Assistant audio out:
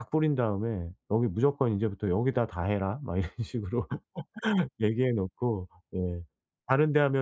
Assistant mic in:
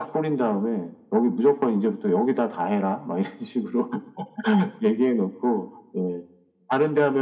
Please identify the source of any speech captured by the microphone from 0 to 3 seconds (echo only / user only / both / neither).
echo only